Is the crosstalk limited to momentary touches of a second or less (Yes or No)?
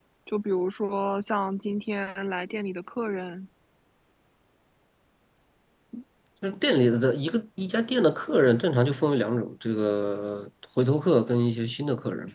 Yes